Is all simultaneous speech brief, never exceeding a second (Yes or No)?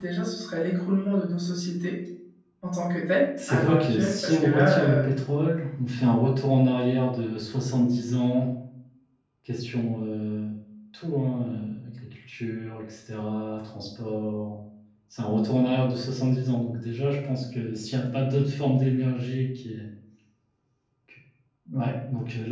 No